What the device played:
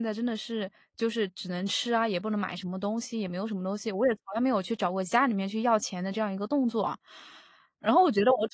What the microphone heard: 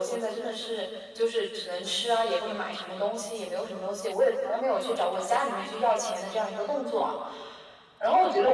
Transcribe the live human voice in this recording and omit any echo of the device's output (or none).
none